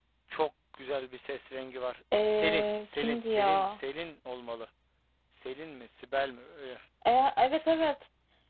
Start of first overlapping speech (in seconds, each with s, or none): 2.1 s